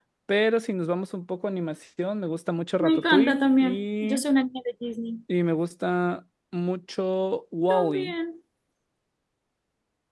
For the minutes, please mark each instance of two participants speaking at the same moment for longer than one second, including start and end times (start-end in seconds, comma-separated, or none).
2.8-4.2